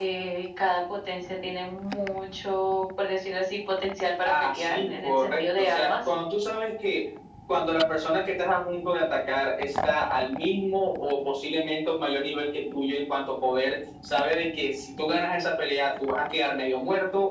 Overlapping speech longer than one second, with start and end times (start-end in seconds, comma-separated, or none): 4.2-6.1